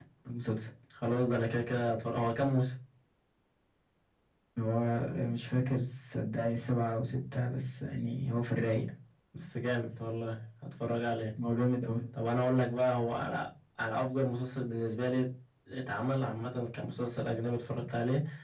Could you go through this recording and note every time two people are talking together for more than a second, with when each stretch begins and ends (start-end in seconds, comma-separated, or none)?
none